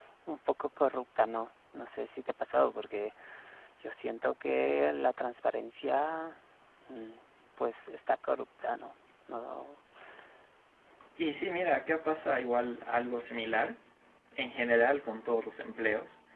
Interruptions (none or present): none